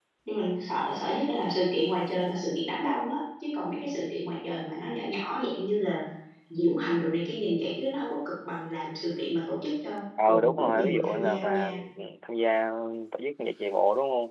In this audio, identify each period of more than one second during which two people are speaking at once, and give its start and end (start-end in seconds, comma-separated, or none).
10.2-11.7